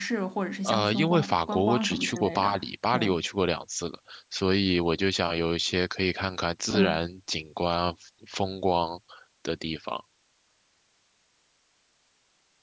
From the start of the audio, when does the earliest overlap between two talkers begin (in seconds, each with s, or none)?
0.6 s